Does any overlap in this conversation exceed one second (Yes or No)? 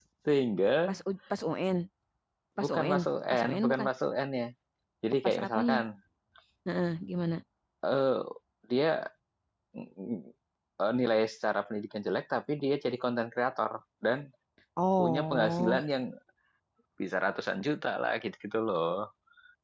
Yes